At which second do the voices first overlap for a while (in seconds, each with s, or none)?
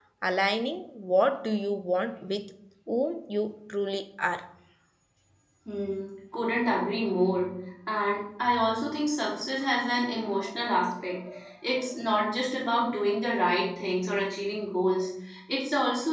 none